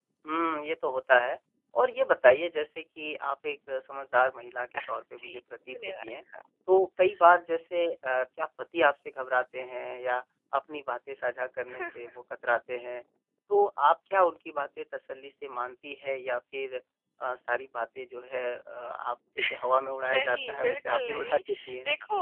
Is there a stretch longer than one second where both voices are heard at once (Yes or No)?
Yes